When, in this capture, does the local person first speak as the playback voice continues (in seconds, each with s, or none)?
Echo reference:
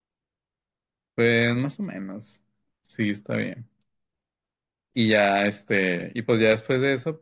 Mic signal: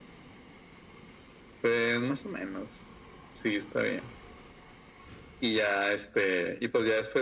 none